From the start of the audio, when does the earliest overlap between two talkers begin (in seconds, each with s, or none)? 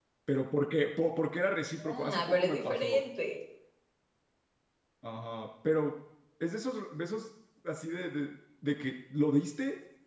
1.8 s